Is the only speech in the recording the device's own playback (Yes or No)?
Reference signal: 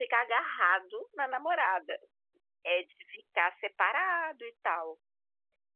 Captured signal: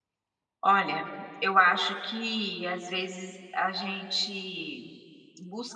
No